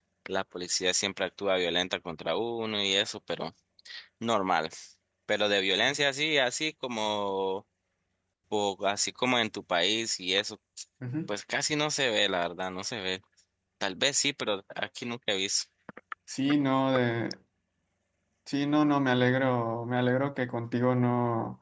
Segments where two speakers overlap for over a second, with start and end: none

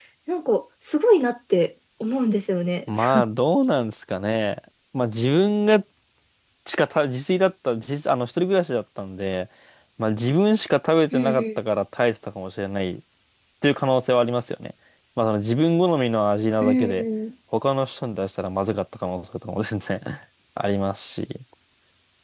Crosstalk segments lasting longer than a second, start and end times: none

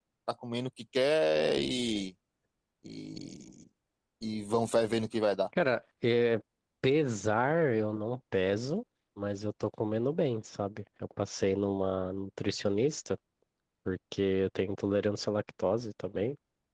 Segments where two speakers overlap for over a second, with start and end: none

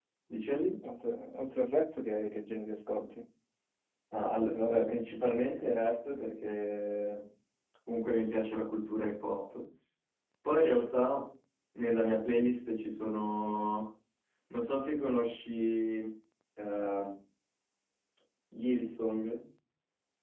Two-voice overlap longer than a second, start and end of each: none

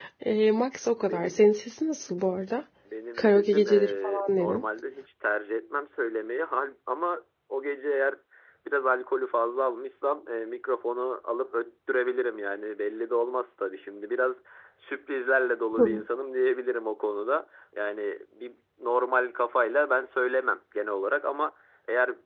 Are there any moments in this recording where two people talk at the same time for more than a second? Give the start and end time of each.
3.2-4.6

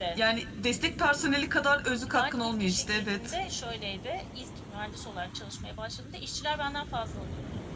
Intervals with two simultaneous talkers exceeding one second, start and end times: 2.0-3.3

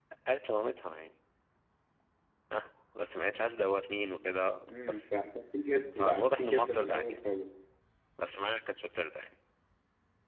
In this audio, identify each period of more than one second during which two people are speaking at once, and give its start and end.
6.0-7.2

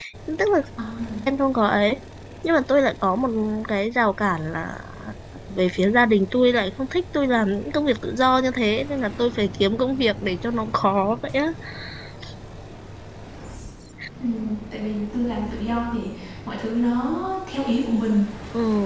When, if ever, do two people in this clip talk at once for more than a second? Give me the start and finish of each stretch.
none

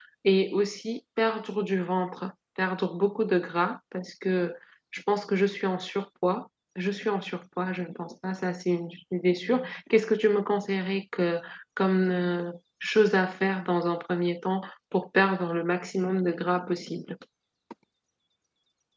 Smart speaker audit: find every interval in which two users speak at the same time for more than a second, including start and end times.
none

